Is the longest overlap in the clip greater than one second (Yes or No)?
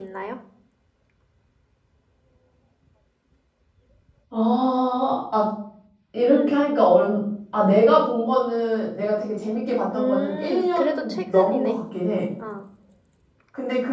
Yes